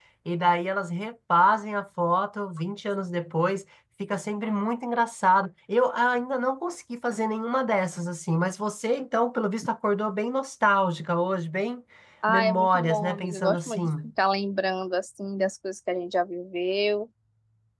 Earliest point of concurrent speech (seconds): 12.3 s

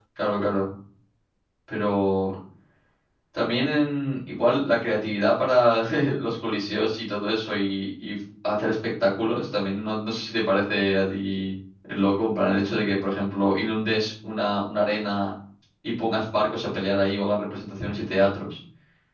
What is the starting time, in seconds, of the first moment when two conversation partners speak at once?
none

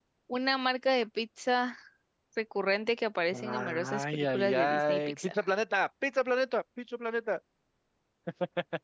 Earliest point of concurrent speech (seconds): 3.3 s

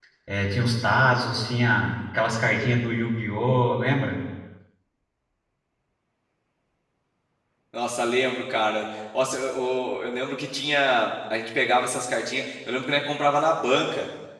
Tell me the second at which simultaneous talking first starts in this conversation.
none

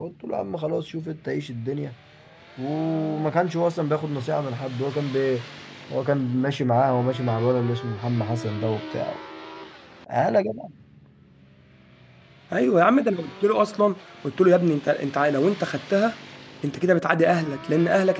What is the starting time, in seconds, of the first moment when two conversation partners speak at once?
none

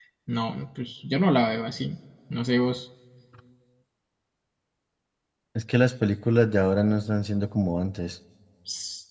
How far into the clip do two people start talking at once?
none

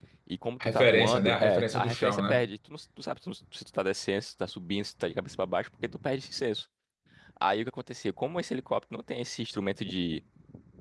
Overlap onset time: 0.6 s

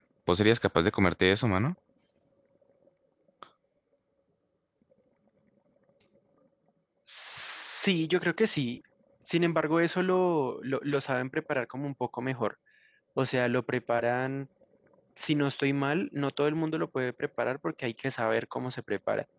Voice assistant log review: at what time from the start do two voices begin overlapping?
none

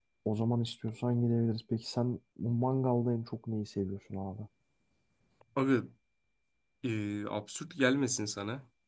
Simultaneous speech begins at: none

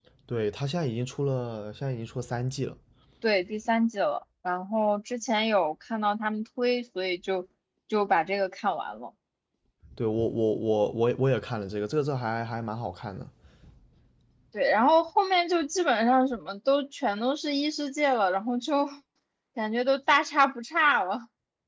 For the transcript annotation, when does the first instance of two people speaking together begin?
none

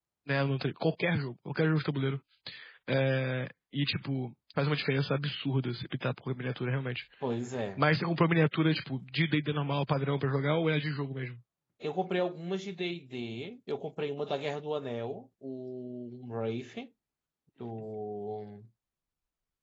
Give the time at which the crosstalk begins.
none

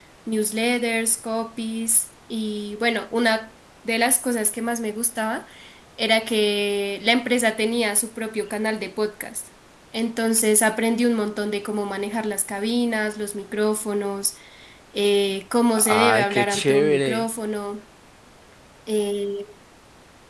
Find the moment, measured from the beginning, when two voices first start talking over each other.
15.8 s

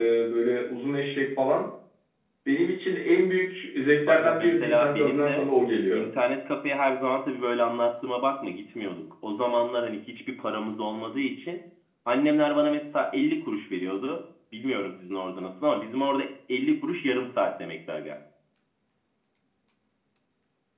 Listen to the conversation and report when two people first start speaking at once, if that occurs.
4.1 s

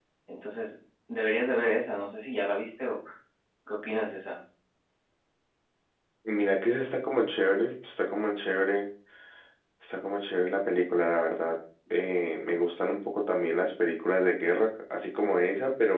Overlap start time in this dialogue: none

